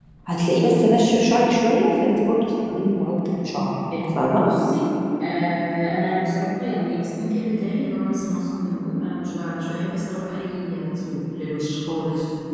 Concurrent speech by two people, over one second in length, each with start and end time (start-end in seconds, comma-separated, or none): none